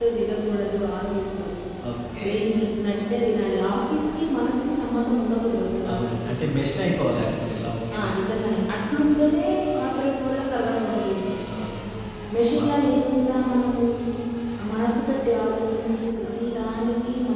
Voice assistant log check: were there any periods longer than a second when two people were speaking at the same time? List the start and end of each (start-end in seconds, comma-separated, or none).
none